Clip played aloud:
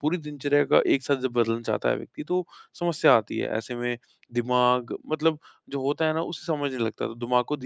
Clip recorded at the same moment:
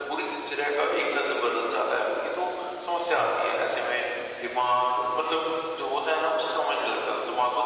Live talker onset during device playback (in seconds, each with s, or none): none